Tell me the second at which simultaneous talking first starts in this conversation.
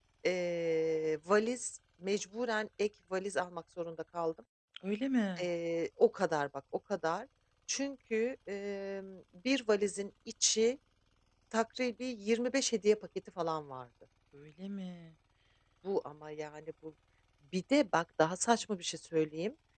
none

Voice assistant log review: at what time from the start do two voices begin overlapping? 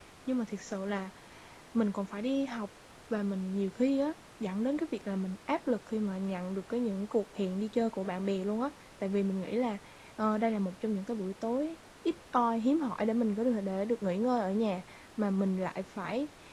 none

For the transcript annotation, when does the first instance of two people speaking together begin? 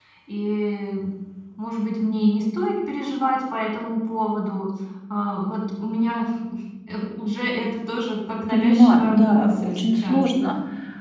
8.5 s

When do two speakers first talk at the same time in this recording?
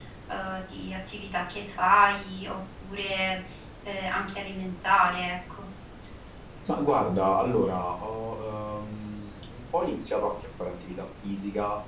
none

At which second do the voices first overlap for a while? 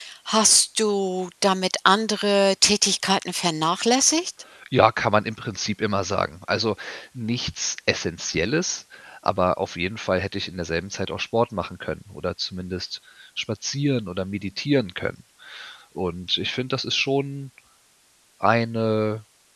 none

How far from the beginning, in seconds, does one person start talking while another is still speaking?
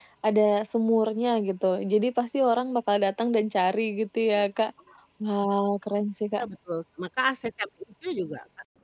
none

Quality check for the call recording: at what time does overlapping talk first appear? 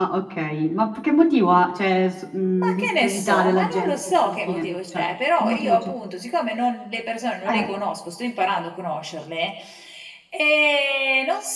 2.5 s

